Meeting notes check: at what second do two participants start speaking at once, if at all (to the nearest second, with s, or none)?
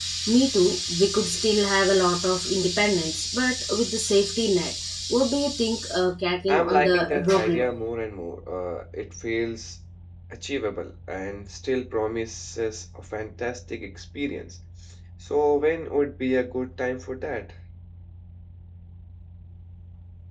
6 s